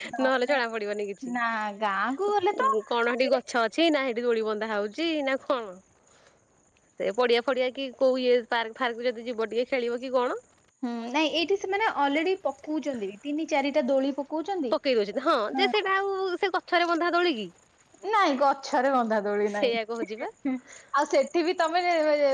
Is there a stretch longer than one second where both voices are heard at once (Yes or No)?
No